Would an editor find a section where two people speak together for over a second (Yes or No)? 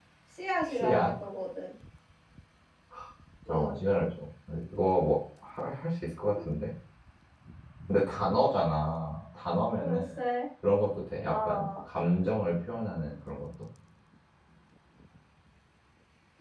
No